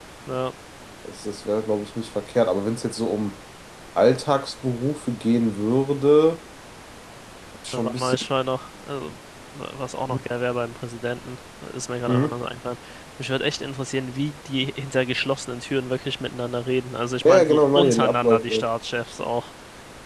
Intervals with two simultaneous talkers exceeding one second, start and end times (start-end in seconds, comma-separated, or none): 17.2-18.7